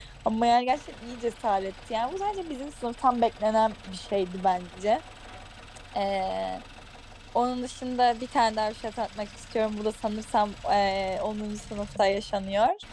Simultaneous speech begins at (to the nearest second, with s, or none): none